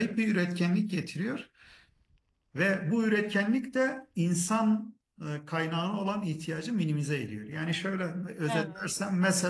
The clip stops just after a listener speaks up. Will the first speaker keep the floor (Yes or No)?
Yes